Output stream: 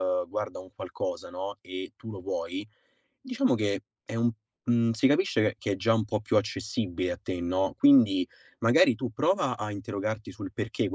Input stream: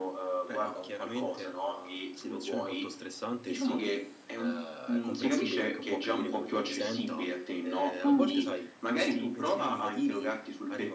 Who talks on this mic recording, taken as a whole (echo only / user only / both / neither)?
both